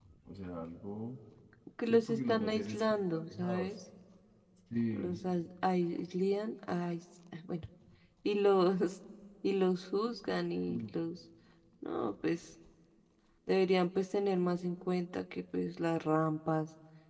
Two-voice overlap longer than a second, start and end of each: 1.9-3.7

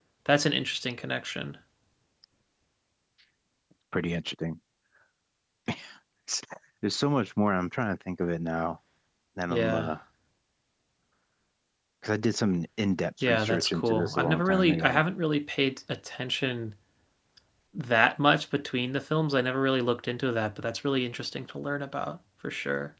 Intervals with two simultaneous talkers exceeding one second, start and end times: 13.2-15.0

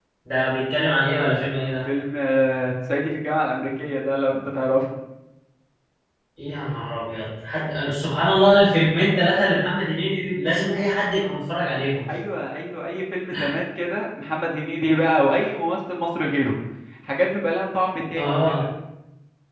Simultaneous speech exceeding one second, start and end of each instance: none

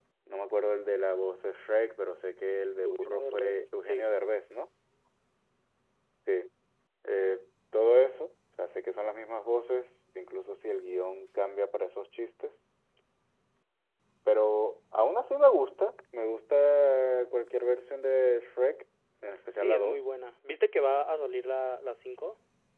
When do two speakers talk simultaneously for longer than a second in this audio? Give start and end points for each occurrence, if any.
2.8-4.0

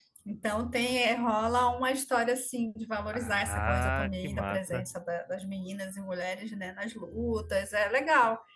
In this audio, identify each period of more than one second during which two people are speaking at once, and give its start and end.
3.1-4.9

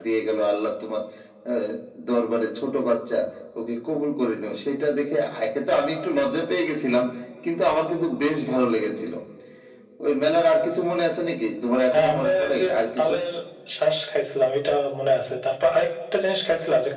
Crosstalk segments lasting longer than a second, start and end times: 11.9-13.1

